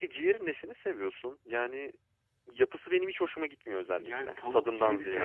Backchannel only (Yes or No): No